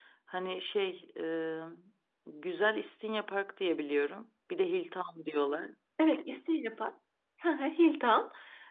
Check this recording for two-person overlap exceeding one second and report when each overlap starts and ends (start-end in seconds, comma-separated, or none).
none